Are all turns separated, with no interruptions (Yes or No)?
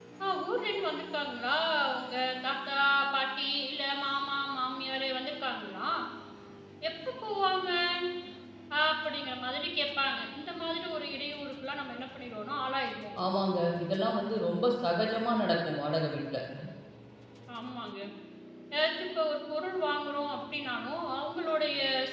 Yes